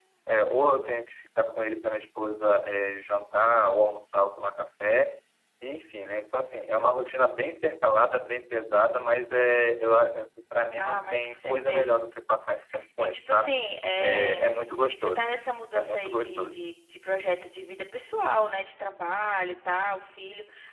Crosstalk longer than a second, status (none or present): present